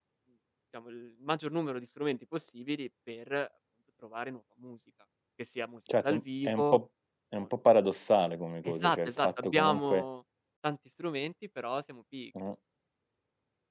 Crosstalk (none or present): present